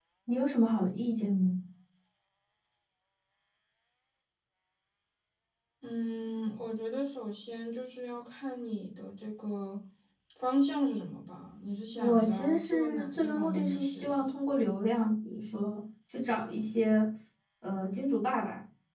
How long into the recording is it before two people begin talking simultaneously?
12.0 s

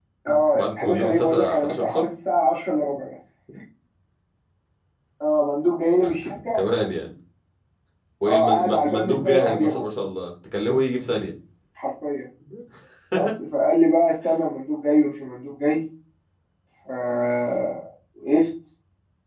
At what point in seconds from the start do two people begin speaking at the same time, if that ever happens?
0.5 s

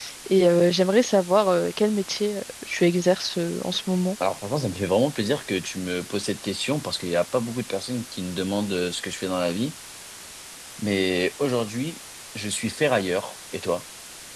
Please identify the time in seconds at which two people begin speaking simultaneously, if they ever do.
none

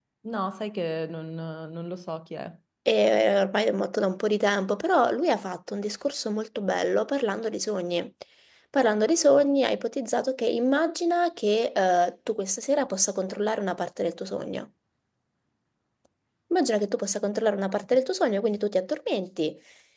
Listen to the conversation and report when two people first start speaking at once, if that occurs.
none

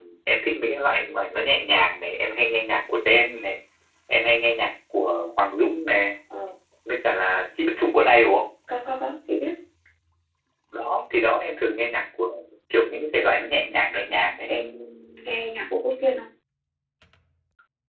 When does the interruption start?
none

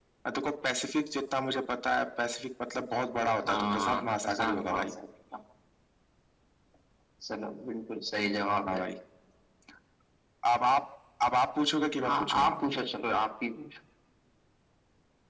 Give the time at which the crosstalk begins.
3.5 s

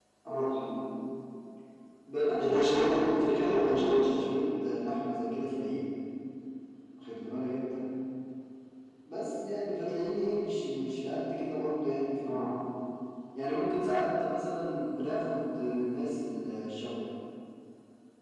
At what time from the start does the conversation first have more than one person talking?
2.4 s

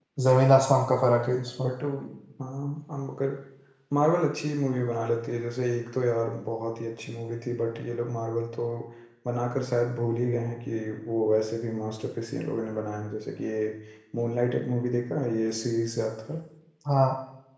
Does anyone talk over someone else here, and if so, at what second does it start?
none

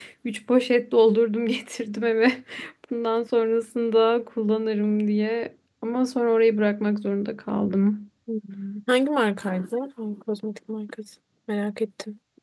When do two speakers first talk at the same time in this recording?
none

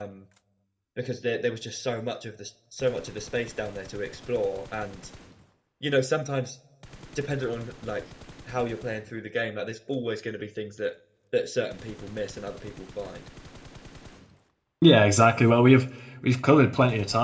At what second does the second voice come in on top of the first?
none

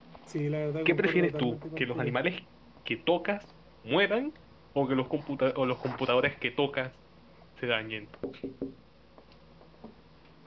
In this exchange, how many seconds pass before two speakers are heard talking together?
0.8 s

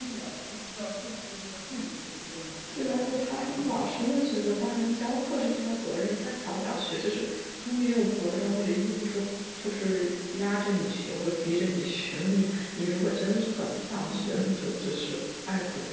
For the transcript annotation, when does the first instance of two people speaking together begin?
2.8 s

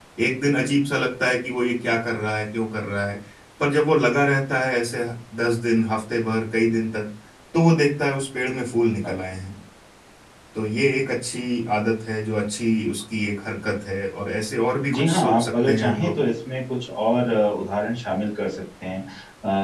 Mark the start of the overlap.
14.9 s

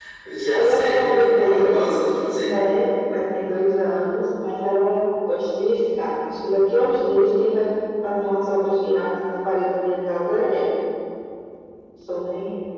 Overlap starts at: 0.5 s

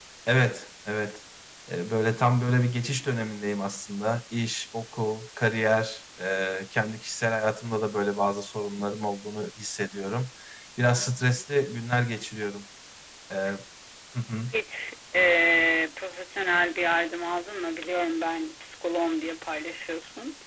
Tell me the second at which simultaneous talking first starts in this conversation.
none

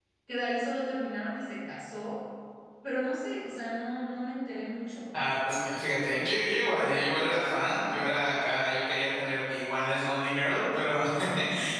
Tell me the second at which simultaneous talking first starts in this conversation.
none

